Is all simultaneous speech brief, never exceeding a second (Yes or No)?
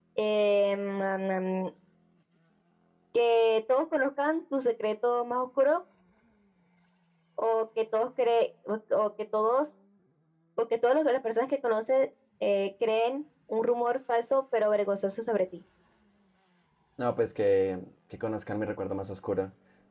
Yes